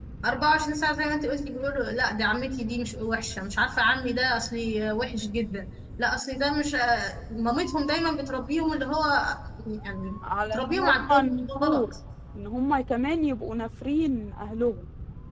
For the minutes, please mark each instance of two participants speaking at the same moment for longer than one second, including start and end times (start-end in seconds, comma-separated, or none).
10.5-11.9